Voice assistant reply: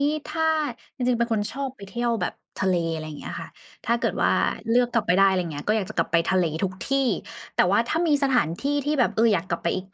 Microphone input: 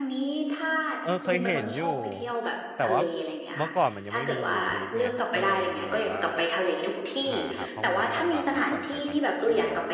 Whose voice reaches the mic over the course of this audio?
both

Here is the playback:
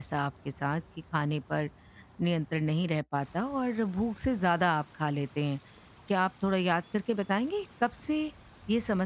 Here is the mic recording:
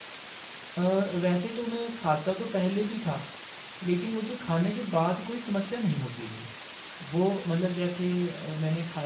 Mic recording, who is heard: user only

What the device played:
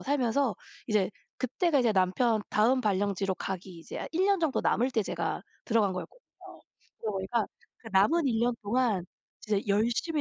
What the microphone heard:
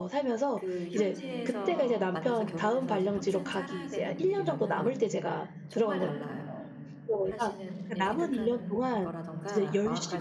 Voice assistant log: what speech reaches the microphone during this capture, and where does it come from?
both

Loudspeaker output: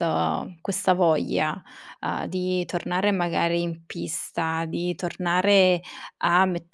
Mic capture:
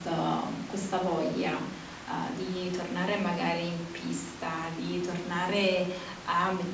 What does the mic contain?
echo only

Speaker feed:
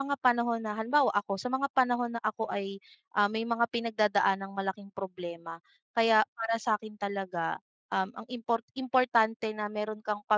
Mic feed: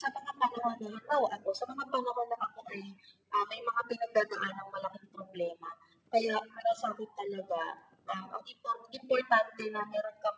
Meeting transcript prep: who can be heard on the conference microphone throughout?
echo only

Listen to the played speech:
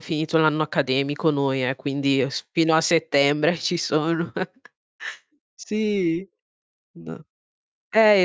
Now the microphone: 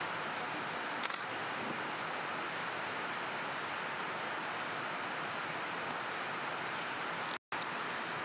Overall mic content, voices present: neither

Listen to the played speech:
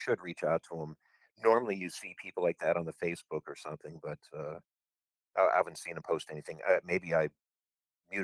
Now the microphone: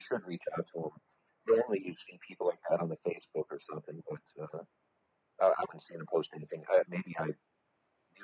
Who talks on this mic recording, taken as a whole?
echo only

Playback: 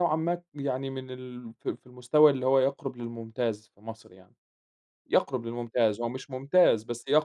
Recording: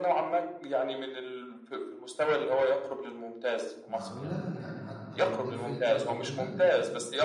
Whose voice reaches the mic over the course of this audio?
both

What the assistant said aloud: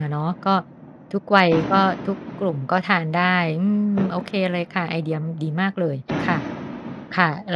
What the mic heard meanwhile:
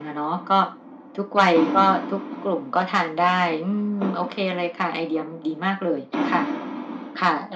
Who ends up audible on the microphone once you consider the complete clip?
echo only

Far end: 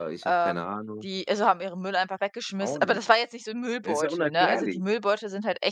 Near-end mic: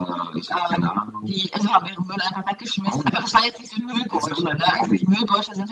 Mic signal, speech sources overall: echo only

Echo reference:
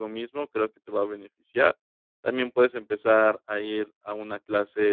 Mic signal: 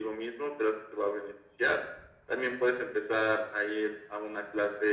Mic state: echo only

